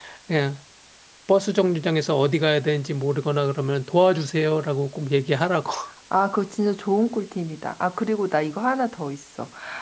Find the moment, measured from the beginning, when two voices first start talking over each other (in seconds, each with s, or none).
none